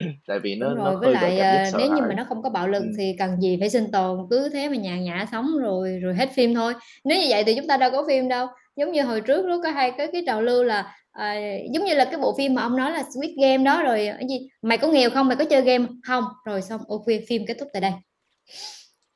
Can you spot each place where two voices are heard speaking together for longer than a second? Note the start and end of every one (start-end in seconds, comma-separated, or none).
0.6-2.1